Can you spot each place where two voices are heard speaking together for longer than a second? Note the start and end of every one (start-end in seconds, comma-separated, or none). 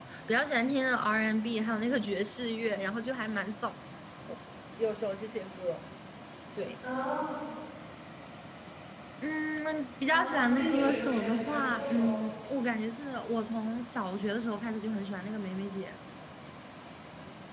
10.1-12.2